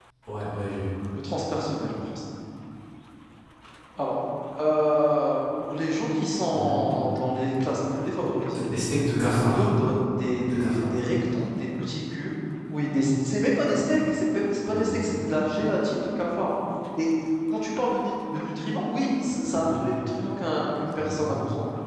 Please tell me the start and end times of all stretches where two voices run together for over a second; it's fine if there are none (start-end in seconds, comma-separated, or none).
none